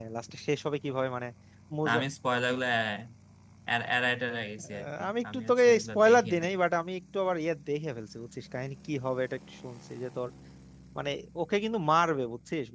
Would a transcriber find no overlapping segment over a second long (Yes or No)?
No